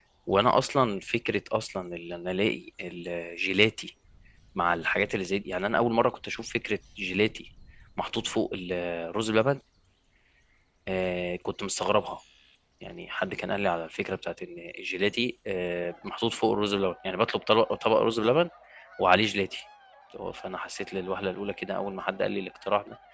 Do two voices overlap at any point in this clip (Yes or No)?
No